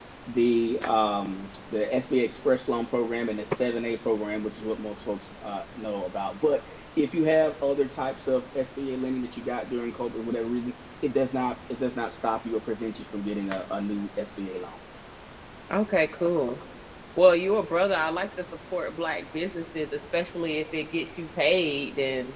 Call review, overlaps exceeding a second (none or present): none